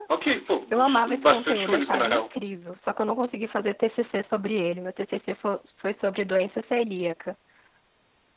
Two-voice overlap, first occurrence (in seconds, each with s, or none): 0.7 s